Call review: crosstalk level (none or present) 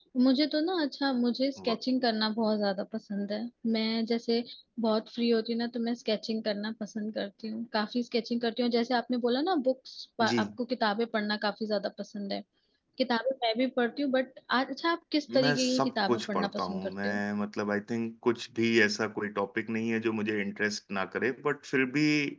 present